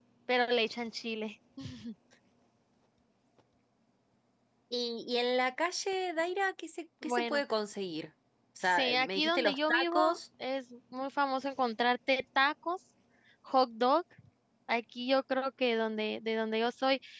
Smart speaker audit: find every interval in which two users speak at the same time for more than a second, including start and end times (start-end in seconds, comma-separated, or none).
8.6-10.2